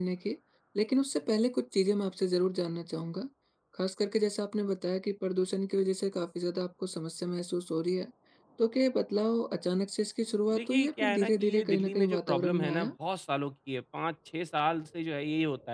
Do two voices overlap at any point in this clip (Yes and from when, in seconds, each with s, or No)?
Yes, from 10.5 s